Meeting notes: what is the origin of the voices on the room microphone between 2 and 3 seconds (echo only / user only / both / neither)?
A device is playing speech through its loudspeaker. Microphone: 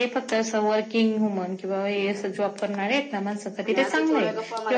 echo only